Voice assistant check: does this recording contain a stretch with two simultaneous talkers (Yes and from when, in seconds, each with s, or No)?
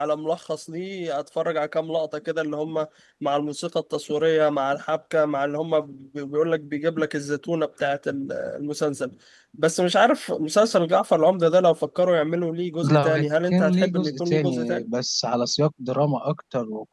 Yes, from 12.8 s